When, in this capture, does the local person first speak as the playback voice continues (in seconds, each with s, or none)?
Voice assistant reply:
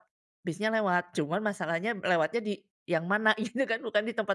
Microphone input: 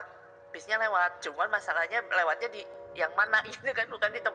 none